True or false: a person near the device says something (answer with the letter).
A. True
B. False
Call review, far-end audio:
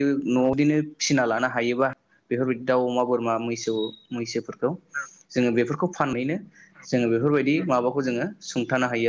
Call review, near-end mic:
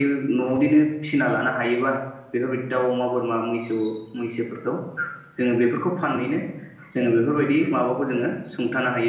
B